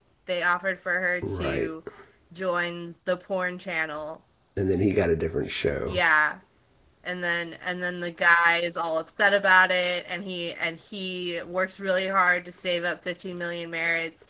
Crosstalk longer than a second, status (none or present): none